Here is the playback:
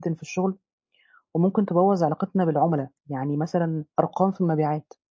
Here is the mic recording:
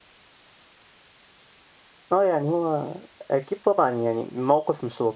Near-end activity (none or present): present